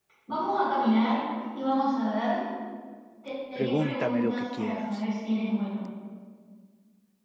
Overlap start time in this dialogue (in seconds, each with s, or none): 3.6 s